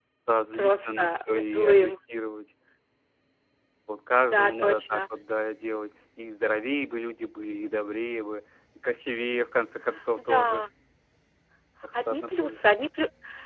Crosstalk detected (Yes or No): Yes